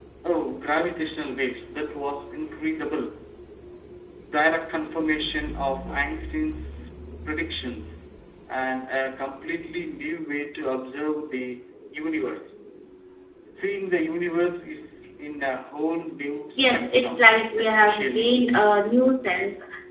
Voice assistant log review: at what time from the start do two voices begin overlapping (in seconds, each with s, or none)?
16.6 s